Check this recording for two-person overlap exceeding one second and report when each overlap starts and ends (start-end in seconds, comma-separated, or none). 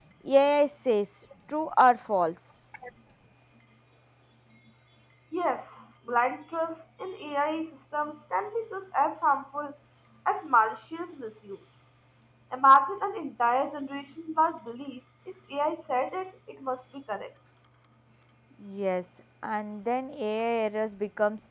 none